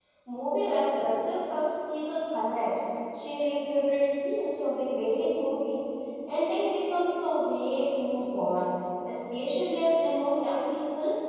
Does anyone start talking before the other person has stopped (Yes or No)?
No